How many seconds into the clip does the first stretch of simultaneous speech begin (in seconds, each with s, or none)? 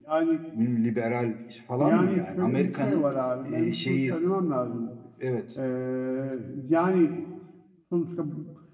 1.8 s